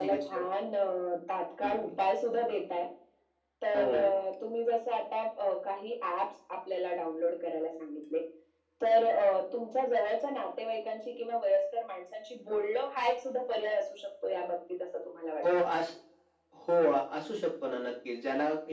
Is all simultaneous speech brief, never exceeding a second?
Yes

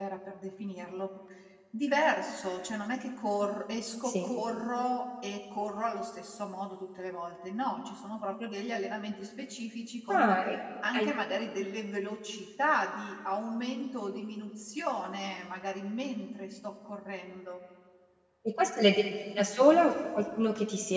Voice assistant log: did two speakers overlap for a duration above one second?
No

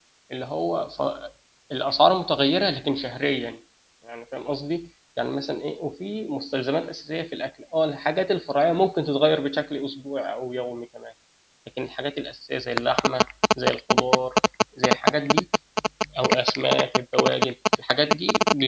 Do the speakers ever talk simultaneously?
No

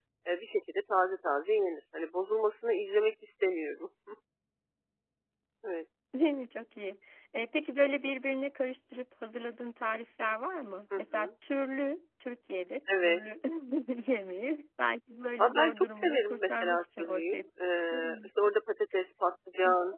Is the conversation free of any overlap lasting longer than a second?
No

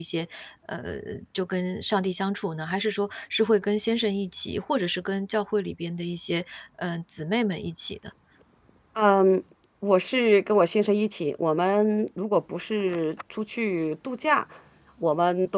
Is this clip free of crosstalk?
Yes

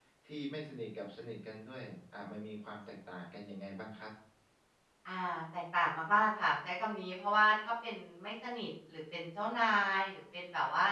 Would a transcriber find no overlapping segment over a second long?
Yes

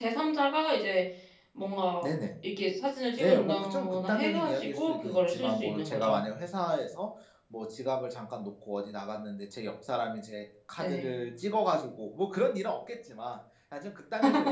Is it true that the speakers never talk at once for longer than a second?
No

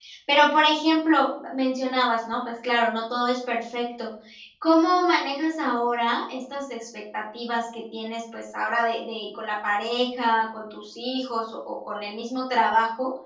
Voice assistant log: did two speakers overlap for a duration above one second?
No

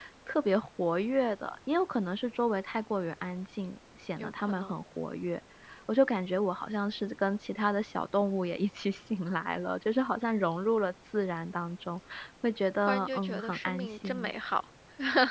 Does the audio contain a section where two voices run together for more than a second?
Yes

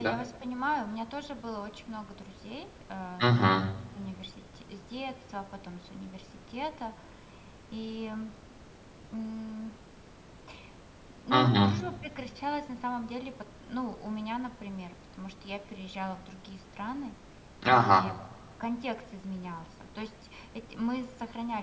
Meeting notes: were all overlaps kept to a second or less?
Yes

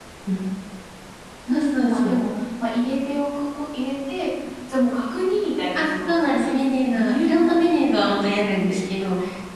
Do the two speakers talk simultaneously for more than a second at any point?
Yes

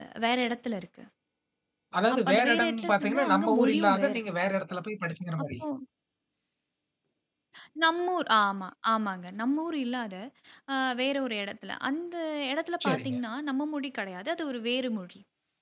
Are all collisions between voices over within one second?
No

